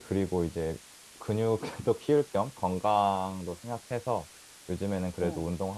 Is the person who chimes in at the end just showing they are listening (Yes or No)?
Yes